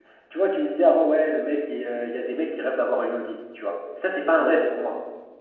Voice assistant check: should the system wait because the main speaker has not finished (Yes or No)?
Yes